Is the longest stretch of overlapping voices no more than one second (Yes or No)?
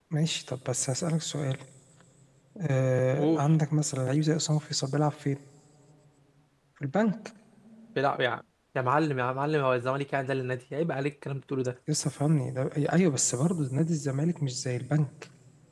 Yes